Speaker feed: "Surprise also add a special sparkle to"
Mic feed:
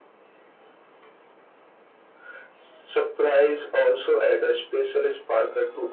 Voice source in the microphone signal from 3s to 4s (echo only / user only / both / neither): echo only